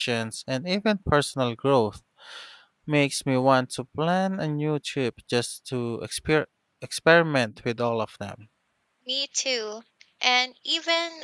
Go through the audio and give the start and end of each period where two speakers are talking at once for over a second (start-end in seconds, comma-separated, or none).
none